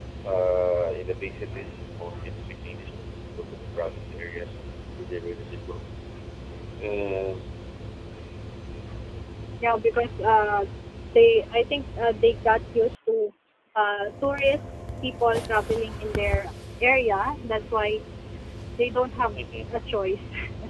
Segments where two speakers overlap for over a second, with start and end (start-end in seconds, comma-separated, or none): none